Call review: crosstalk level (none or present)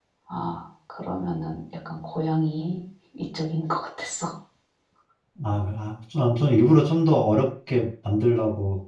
none